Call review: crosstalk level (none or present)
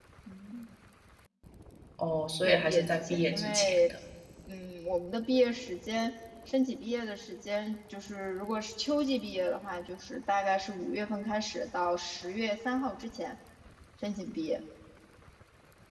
present